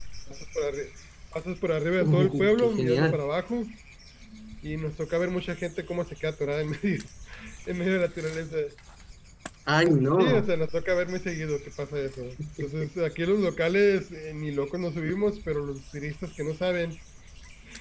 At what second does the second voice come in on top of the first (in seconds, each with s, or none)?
2.0 s